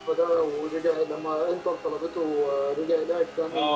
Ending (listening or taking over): taking over